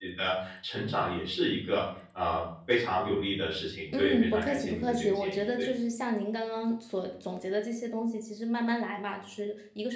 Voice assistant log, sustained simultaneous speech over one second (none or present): present